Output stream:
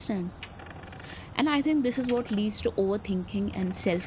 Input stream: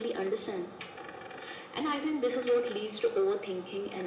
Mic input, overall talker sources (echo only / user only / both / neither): echo only